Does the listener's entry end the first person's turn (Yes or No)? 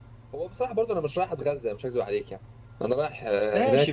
Yes